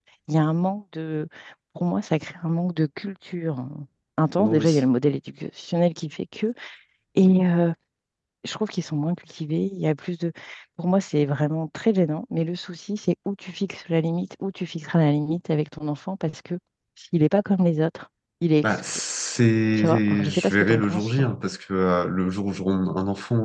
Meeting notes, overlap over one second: present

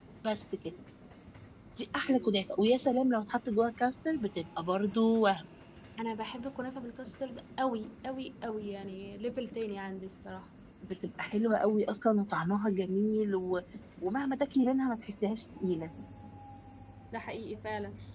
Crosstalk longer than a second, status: none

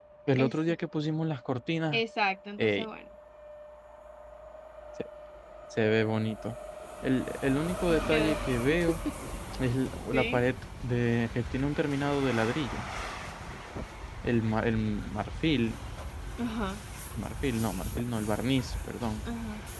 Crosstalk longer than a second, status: none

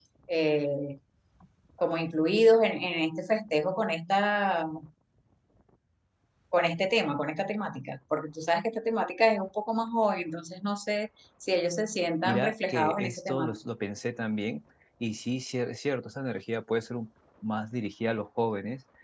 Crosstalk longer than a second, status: present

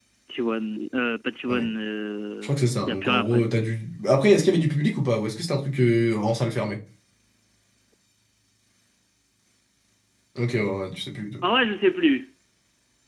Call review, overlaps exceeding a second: none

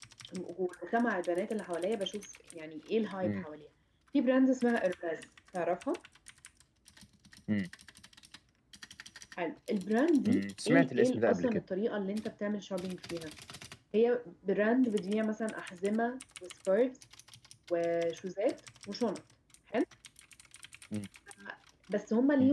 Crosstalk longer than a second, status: present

